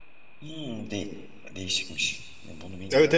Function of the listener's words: taking over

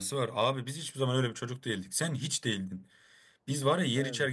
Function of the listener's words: listening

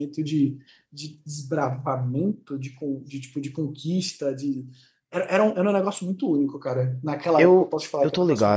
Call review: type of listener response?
taking over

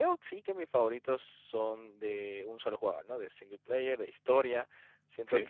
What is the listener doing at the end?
listening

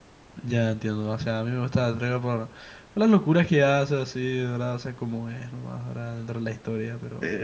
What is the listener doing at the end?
taking over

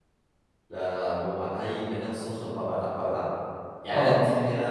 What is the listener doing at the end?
listening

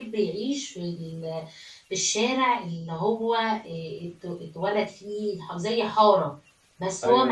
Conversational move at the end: listening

